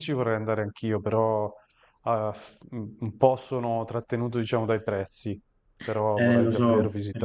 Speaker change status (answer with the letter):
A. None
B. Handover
B